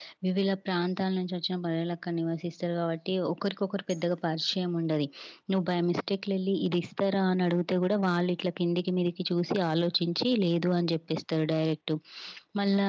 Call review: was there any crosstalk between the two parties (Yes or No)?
No